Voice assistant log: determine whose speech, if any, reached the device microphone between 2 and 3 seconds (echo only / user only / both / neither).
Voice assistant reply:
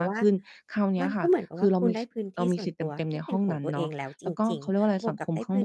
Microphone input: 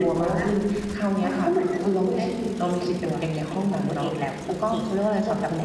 echo only